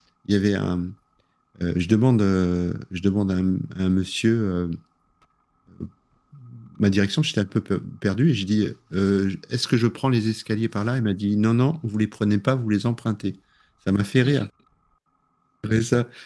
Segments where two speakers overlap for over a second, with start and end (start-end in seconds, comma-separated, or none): none